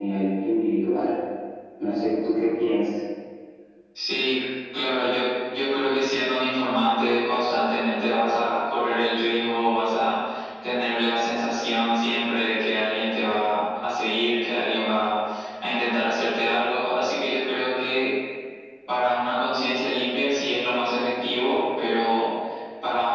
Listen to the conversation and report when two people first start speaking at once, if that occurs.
none

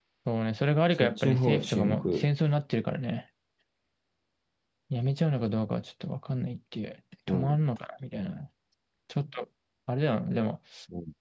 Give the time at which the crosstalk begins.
1 s

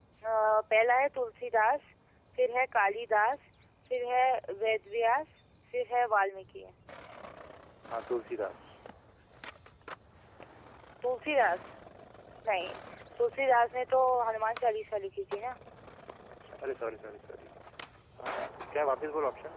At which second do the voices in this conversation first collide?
none

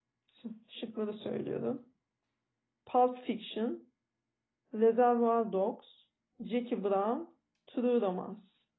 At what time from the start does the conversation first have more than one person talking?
none

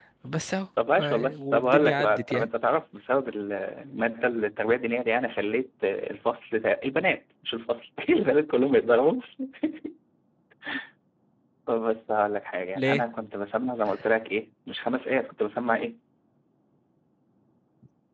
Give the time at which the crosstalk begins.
1 s

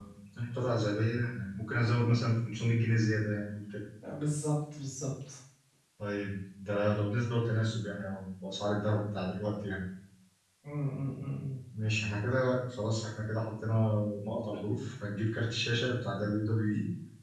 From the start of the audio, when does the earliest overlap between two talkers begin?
none

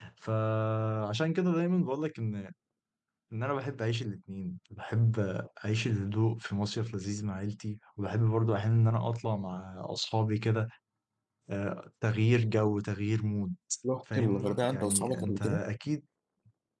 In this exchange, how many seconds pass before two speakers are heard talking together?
14 s

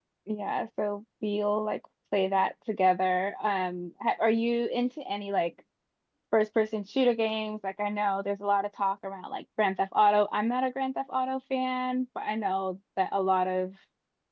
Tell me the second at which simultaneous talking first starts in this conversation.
none

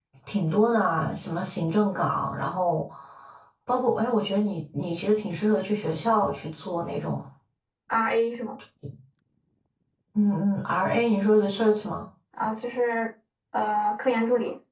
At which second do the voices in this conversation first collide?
none

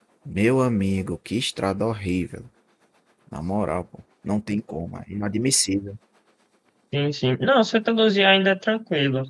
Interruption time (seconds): none

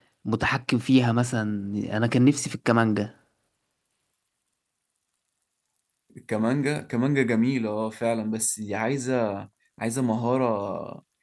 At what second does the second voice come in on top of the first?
none

